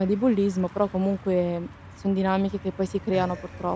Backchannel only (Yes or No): No